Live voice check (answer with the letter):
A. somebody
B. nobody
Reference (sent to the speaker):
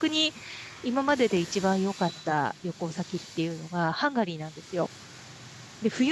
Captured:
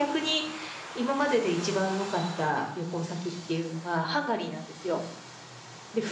B